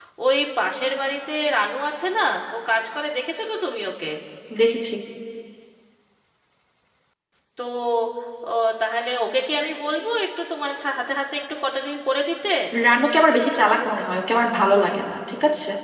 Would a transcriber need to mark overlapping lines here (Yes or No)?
No